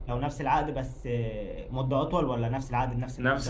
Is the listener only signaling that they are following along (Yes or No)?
No